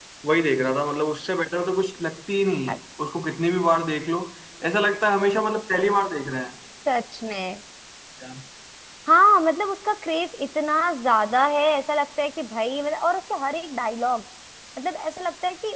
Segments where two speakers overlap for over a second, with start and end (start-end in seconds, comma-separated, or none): none